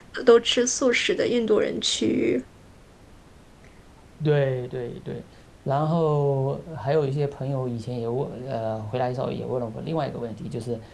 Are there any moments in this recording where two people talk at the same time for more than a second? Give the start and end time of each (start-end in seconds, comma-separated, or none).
none